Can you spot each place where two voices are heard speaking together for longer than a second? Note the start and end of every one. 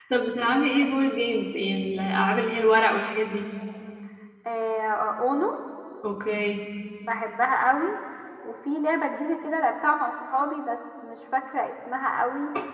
none

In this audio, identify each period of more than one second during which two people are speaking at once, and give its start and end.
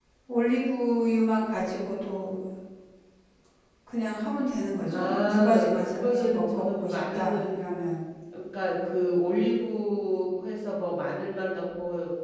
4.9-7.7

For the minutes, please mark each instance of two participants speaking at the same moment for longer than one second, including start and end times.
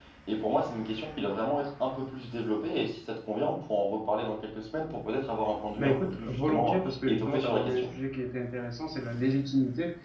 5.8-7.9

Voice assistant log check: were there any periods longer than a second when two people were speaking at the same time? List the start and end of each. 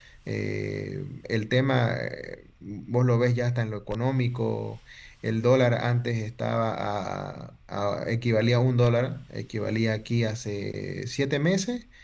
none

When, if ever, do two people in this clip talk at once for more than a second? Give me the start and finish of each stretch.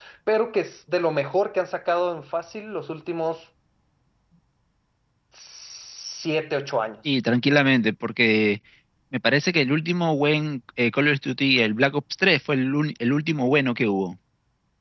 none

